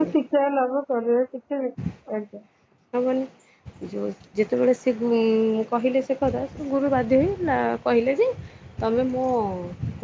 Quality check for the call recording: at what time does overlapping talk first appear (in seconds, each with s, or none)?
none